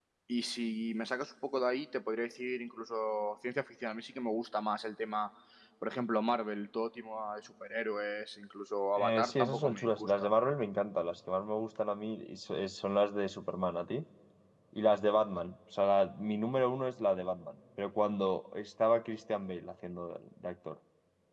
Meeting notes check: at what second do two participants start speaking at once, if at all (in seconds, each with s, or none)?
9.0 s